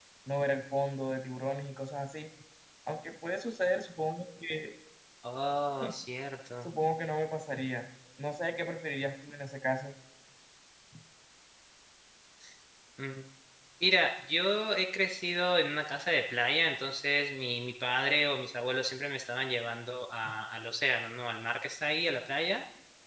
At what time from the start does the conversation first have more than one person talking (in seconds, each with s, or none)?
none